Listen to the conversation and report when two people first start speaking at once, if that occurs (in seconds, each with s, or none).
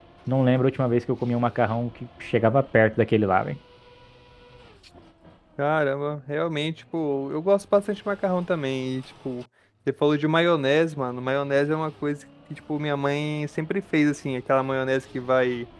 none